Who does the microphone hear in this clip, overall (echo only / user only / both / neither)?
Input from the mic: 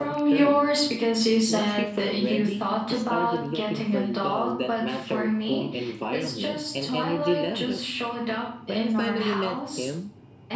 both